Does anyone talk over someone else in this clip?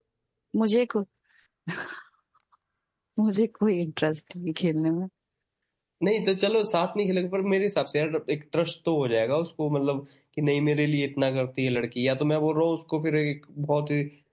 No

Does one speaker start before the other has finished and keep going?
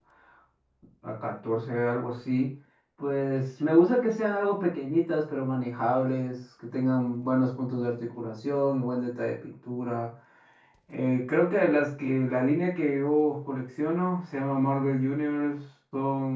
No

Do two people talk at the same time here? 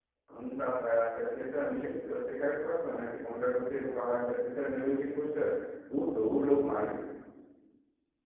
No

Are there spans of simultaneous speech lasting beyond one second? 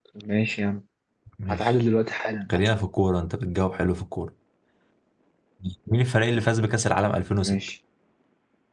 No

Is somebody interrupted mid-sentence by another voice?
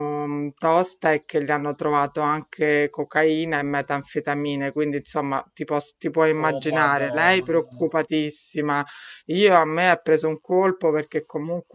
Yes, from 6.4 s

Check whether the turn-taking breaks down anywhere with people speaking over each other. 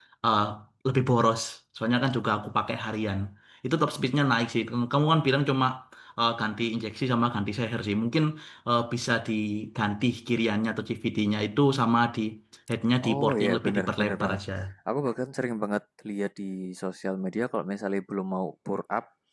Yes, from 13.1 s

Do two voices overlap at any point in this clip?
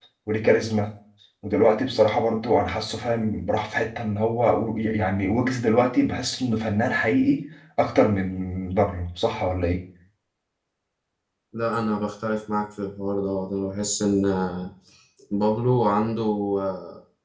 No

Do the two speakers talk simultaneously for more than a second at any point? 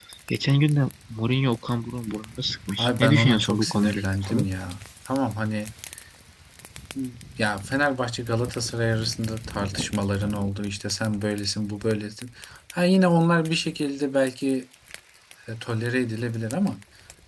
Yes, from 2.8 s

